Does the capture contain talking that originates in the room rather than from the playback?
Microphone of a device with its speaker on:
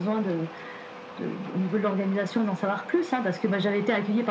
No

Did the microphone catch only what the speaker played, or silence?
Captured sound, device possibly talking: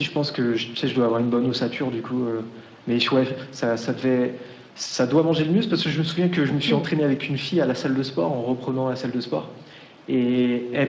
No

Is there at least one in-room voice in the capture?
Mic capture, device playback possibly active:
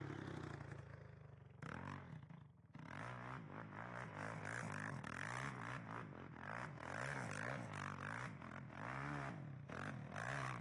No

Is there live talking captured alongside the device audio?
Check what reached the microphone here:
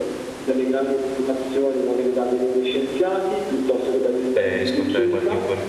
Yes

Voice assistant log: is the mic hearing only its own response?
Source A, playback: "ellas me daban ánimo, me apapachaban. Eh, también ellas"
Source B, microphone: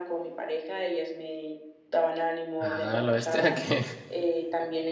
No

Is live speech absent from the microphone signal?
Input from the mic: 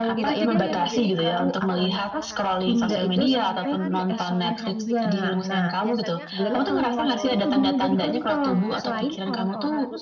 No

